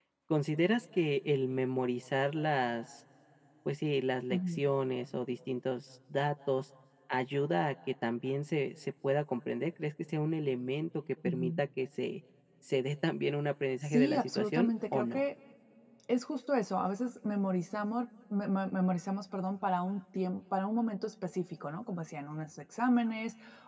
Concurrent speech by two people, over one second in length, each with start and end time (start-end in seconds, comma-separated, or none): 13.8-15.2